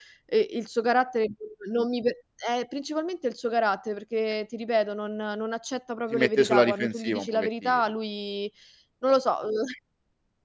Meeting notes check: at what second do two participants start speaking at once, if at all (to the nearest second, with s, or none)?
6 s